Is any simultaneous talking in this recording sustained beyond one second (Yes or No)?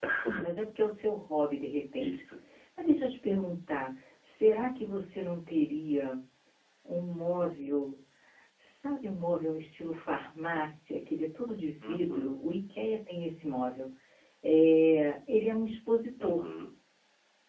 No